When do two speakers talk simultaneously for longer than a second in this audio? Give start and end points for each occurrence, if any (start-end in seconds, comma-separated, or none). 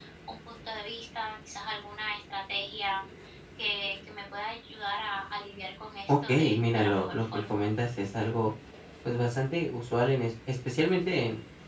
6.1-7.6